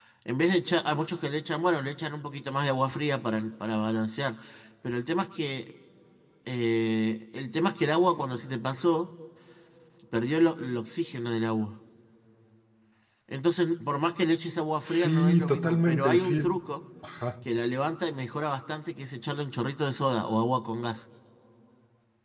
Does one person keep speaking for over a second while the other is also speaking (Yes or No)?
Yes